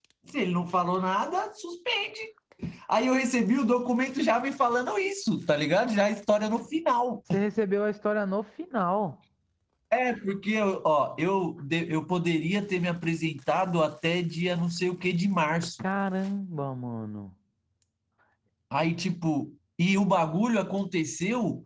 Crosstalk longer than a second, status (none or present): none